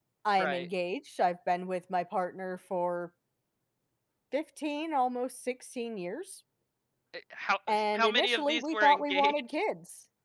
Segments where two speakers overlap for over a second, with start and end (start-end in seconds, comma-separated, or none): 7.9-9.4